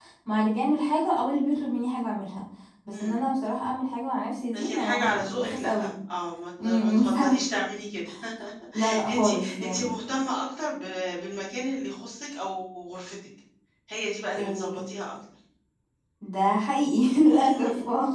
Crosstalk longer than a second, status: present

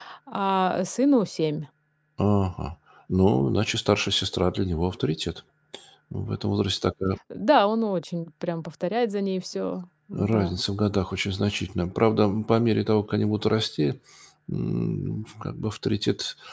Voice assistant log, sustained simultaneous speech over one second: none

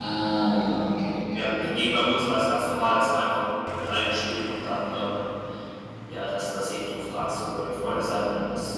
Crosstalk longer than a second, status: none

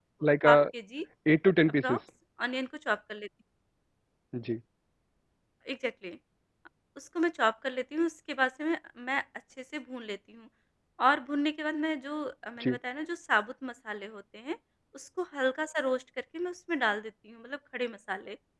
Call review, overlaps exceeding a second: none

